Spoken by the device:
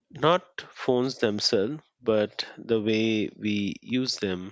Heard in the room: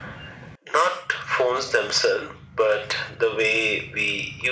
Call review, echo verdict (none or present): present